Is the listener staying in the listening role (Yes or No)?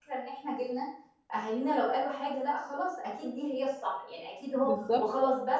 Yes